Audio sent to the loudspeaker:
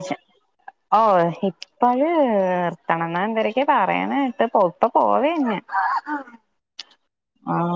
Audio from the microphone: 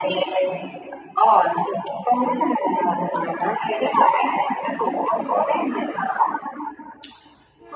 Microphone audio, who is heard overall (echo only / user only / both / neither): echo only